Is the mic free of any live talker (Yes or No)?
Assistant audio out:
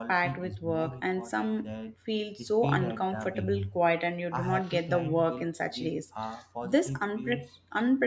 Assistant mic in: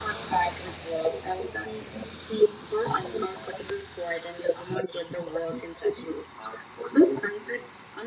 Yes